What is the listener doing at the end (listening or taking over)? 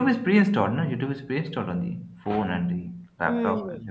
taking over